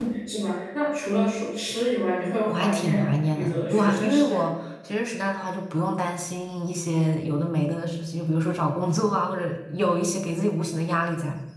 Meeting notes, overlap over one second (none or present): present